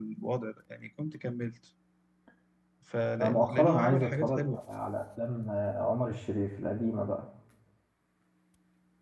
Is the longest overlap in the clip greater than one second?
Yes, from 3.2 s

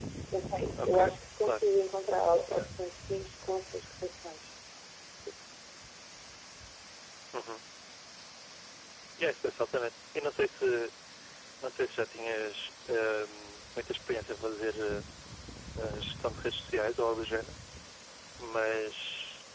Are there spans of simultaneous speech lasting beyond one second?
No

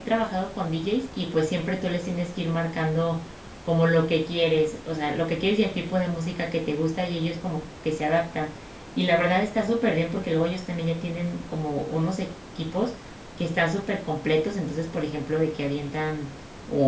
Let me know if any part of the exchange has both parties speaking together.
No

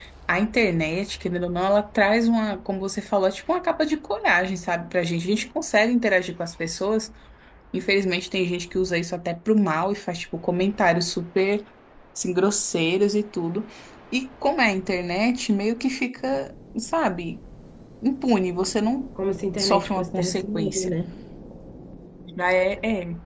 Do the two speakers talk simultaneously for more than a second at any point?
Yes, from 19.6 s

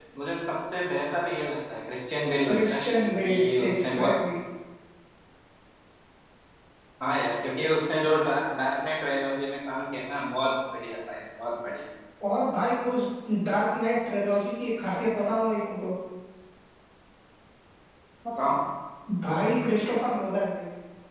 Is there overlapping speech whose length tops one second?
Yes, from 2.5 s

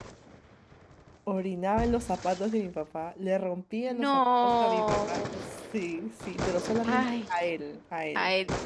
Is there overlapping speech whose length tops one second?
Yes, from 3.8 s

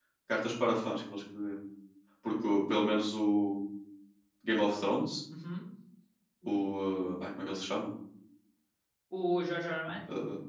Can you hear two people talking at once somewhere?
No

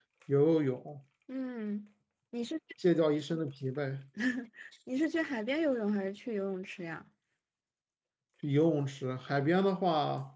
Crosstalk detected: No

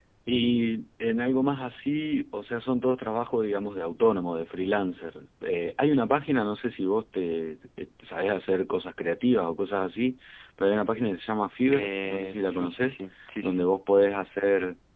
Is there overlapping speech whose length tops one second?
Yes, from 11.7 s

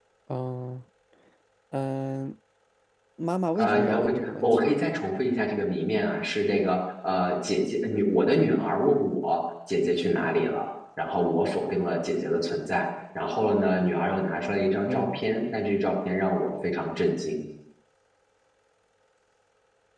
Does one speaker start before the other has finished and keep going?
Yes, from 3.6 s

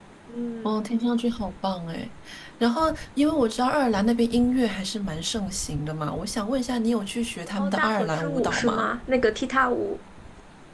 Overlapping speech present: Yes, from 7.6 s

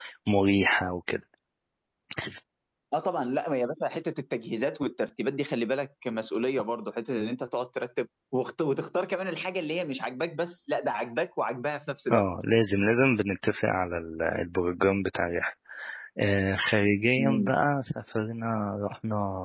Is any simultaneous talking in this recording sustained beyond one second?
No

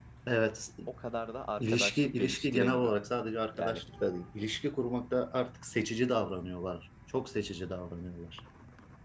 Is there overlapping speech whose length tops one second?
Yes, from 1.6 s

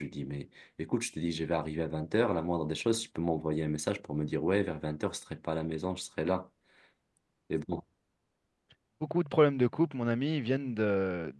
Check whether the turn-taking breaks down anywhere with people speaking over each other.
No

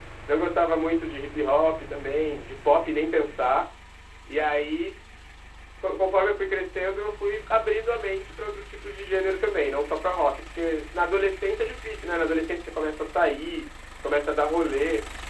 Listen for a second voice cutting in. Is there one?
No

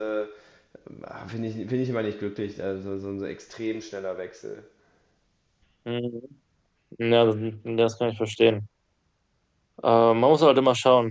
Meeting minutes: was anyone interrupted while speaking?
No

